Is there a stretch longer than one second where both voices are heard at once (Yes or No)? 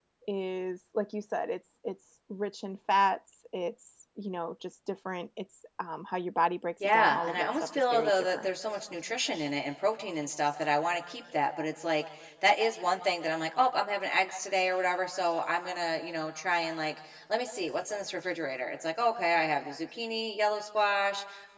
Yes